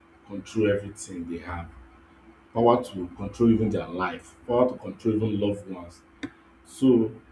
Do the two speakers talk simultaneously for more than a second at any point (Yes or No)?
No